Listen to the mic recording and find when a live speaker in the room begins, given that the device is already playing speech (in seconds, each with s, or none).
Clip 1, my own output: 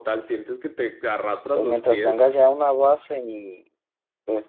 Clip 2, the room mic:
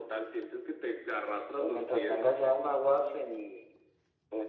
none